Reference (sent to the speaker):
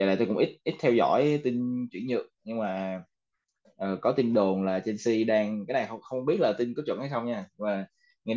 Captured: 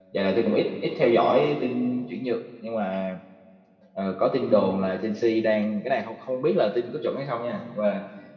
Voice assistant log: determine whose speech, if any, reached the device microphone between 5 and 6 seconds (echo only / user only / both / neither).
echo only